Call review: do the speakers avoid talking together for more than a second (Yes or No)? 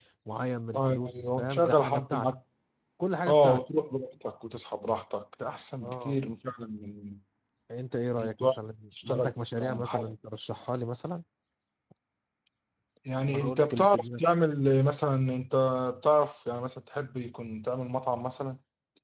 No